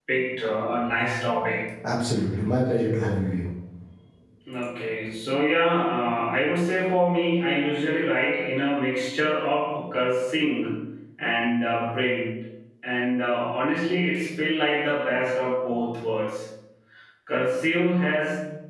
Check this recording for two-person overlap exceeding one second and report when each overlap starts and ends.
none

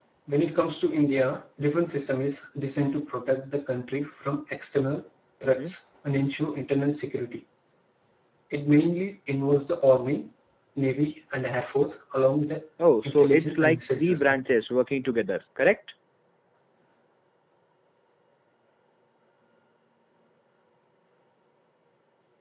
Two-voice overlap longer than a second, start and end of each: 13.0-14.3

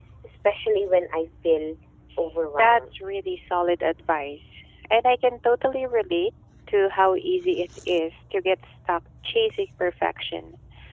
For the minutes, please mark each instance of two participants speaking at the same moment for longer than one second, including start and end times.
none

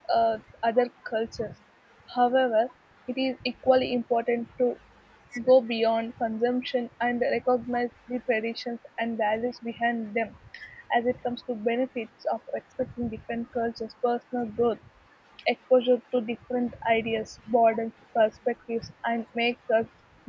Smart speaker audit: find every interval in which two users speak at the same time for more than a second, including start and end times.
none

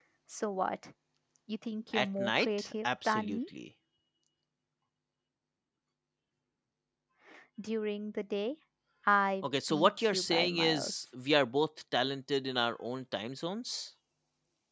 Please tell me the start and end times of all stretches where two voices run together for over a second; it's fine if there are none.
1.9-3.4, 9.4-10.9

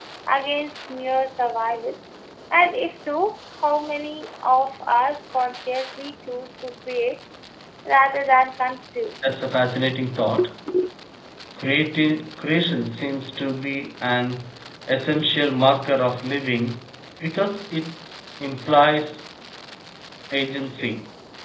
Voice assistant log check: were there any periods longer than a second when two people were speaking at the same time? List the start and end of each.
none

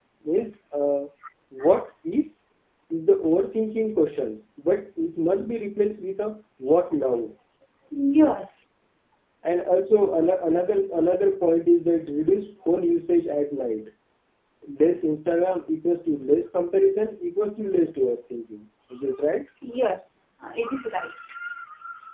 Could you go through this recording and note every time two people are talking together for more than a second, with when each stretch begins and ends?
none

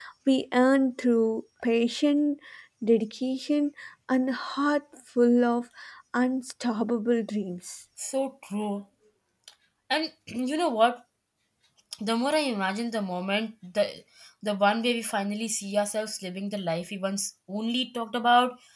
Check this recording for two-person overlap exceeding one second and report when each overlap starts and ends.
none

